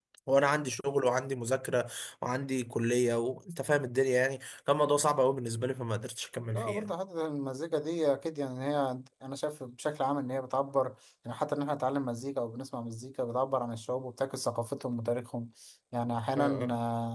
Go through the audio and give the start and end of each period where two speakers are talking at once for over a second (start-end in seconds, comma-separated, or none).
none